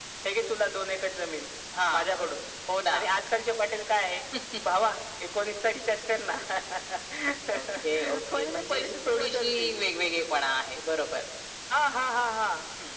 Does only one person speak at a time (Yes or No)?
No